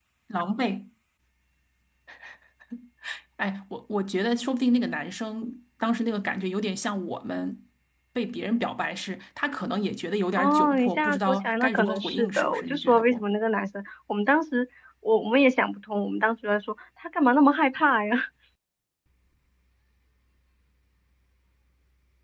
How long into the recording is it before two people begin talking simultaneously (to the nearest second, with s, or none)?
10 s